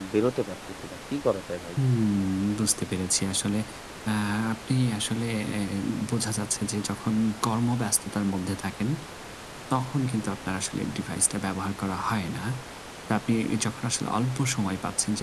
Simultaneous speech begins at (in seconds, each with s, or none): none